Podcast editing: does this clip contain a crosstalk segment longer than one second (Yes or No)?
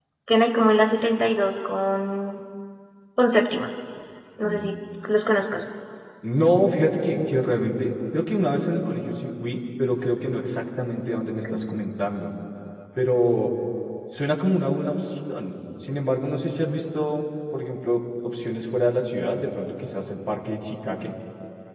No